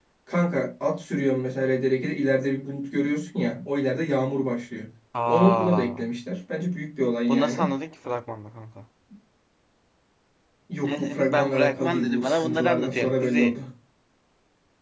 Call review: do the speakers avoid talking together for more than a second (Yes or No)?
No